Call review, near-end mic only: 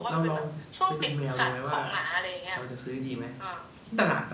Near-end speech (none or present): present